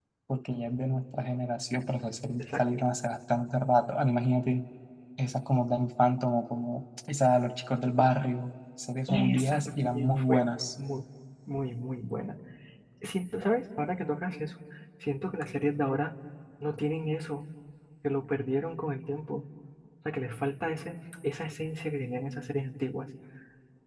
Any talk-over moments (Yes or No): Yes